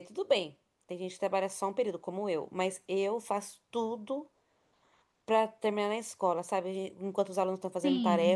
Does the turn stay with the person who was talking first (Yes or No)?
Yes